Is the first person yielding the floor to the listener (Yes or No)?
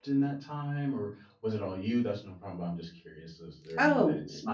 Yes